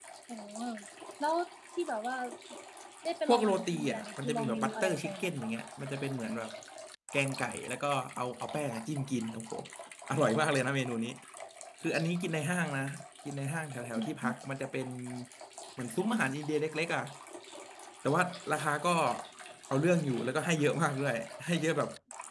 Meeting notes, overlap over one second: present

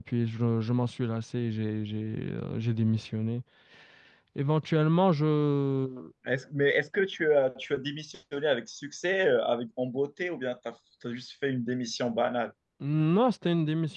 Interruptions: none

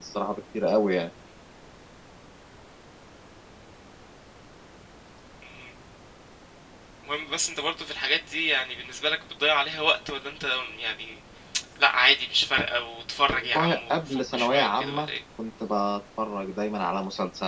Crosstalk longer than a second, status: present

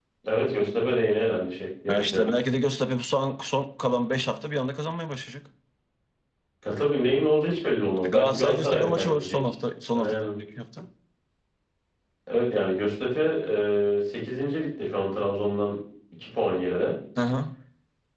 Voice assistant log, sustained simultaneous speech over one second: present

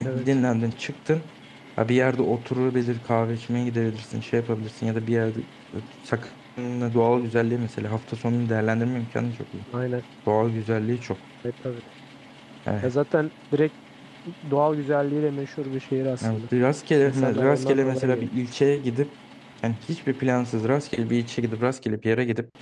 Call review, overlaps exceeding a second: present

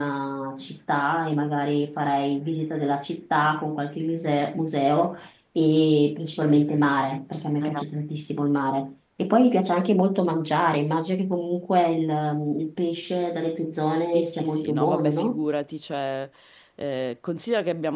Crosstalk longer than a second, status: present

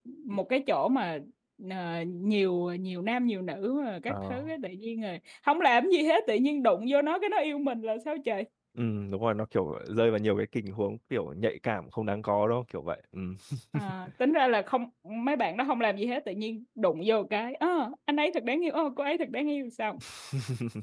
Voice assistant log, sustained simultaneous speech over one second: none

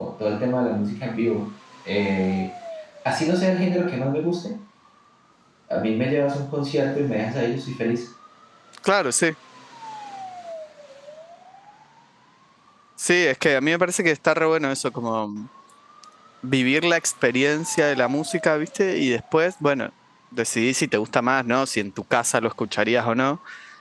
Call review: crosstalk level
none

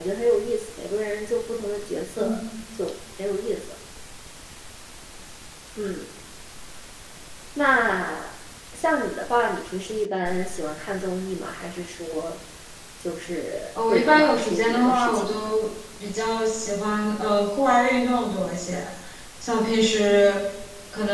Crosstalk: present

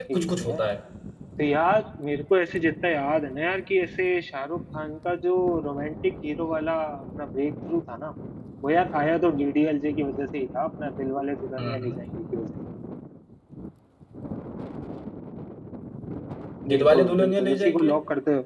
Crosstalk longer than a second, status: present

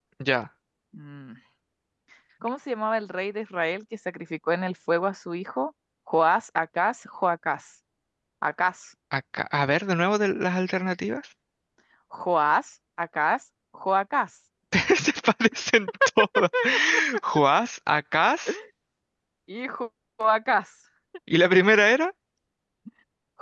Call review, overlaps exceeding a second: none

